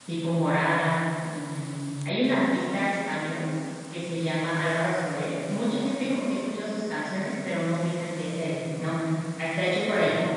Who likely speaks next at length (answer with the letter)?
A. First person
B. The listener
A